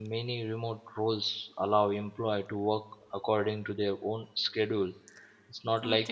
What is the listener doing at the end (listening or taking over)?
listening